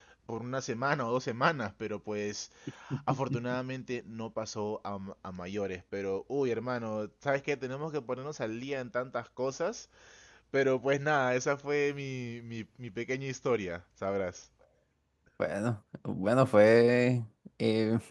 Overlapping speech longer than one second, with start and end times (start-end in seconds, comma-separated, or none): none